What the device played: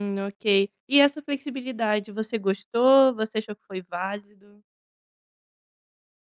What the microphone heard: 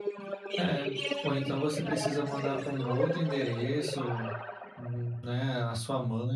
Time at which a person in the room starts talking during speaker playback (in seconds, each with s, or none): 0.6 s